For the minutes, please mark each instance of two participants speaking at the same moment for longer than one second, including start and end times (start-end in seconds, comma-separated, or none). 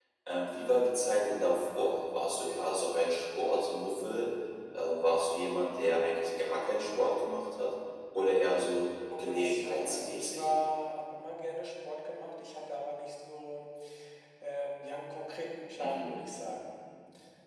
9.2-10.5